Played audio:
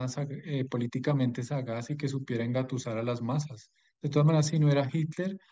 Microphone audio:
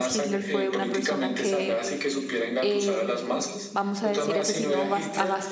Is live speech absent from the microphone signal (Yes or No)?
No